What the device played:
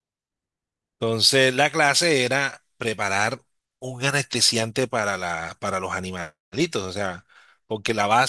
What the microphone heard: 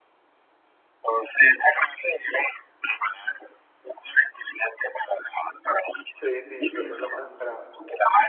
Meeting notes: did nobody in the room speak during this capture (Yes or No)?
No